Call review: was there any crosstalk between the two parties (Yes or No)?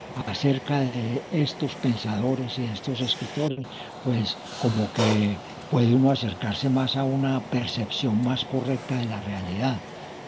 No